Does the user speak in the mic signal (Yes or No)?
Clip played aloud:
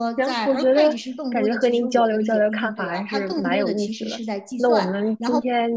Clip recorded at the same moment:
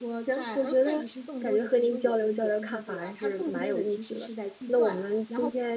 No